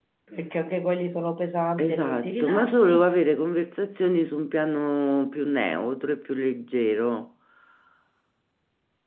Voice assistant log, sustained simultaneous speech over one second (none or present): present